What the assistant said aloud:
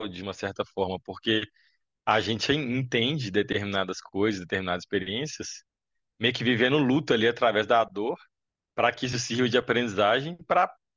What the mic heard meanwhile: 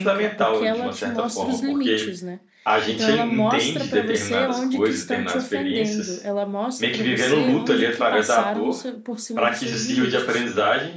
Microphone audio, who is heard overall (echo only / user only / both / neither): both